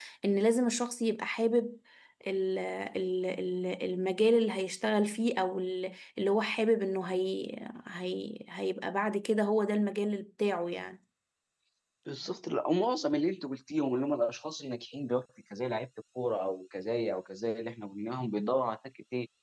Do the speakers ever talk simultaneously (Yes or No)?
No